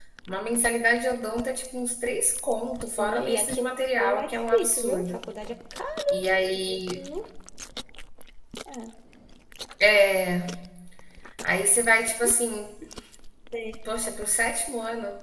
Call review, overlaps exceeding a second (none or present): present